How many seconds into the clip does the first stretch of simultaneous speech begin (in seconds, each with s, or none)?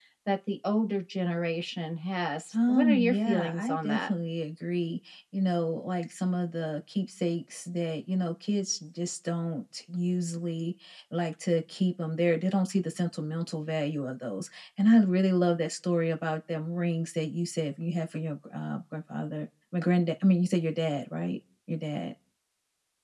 2.5 s